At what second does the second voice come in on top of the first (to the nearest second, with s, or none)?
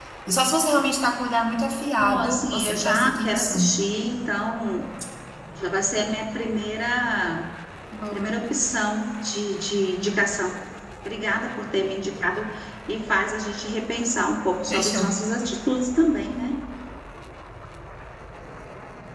2 s